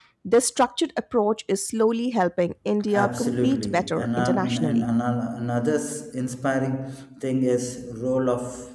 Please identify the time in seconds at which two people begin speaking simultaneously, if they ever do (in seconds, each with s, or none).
2.9 s